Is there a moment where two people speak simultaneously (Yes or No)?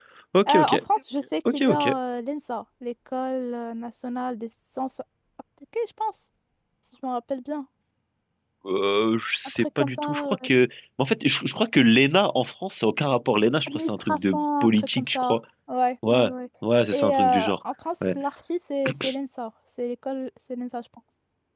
Yes